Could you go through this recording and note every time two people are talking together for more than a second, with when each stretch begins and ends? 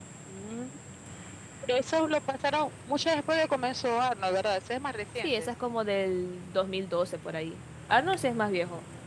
none

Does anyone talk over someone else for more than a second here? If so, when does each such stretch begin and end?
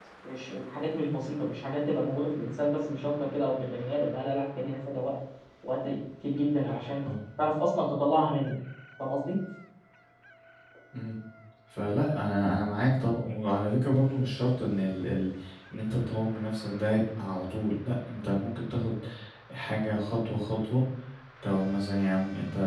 none

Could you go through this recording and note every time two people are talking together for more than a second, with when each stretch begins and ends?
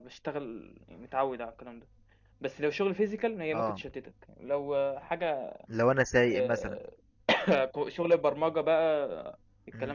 none

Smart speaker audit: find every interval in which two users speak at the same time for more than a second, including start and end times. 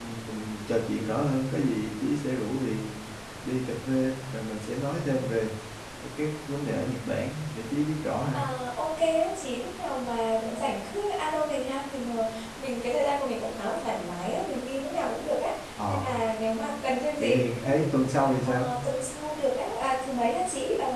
none

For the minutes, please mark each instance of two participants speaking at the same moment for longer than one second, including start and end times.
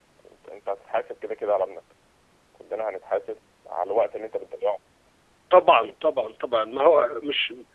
none

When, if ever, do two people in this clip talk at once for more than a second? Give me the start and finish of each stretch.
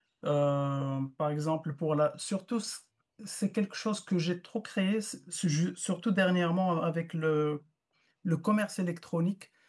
none

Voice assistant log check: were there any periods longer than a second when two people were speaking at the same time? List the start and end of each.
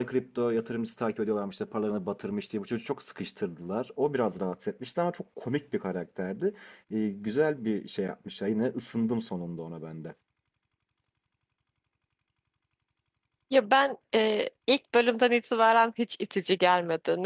none

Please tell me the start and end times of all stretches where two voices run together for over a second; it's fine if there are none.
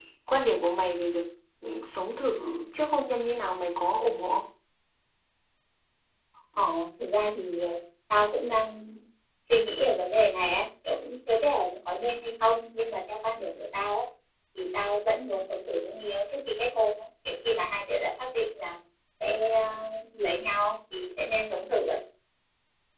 none

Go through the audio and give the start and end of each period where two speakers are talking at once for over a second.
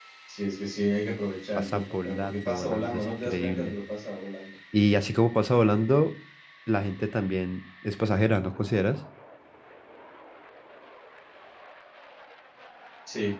1.6-3.8

